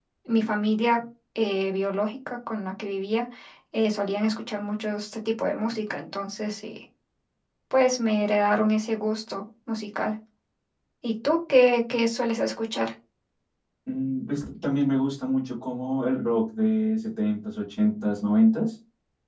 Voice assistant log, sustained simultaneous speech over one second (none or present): none